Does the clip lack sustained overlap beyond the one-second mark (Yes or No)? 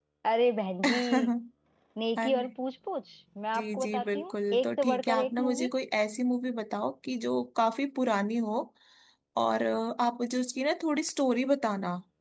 No